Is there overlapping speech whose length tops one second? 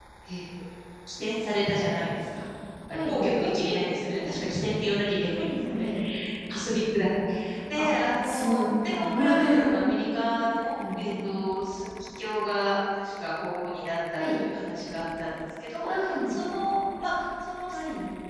Yes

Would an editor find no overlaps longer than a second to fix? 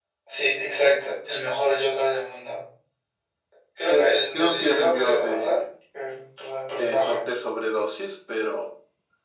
No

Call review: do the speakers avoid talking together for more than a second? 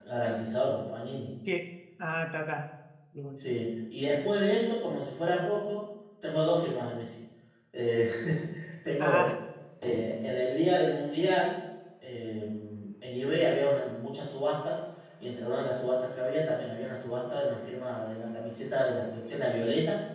Yes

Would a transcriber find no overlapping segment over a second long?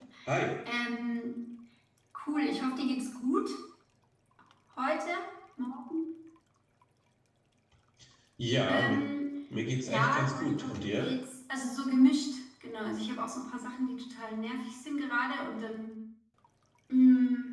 No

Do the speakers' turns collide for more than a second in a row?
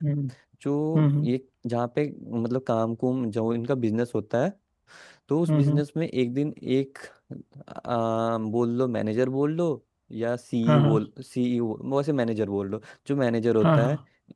No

